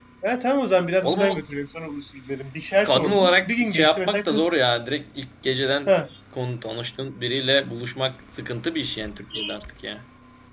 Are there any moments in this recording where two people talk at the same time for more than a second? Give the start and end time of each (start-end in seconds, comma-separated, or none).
2.8-4.4